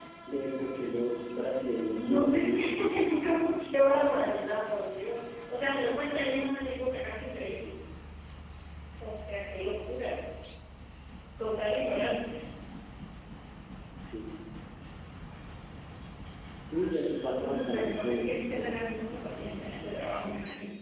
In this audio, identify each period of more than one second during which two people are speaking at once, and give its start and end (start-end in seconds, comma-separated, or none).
2.0-3.2, 17.3-18.9